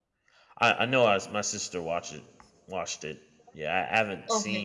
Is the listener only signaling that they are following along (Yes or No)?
Yes